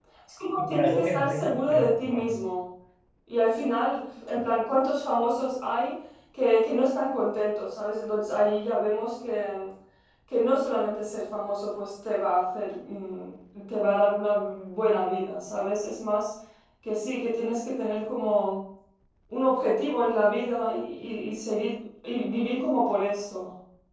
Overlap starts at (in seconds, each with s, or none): 0.6 s